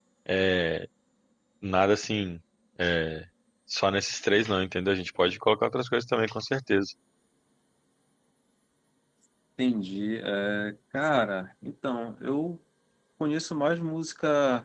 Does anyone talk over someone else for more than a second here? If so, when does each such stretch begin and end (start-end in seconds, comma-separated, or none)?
none